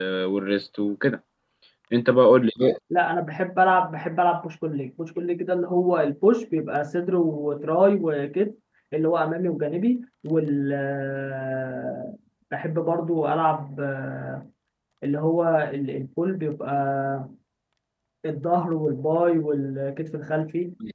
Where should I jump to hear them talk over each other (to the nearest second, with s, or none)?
none